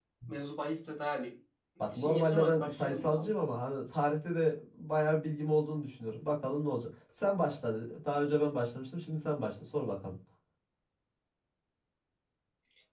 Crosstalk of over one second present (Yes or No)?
Yes